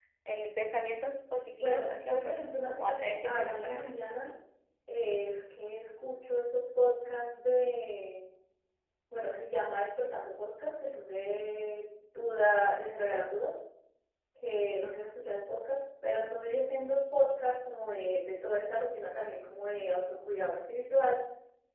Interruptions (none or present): present